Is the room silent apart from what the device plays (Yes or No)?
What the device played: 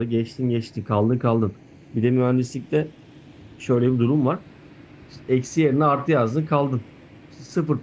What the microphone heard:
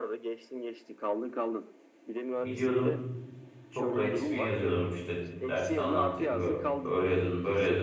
No